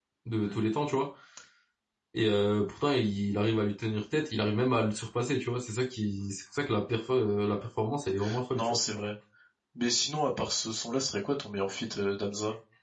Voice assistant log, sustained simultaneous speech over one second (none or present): none